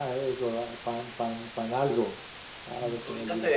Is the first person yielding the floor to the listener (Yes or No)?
Yes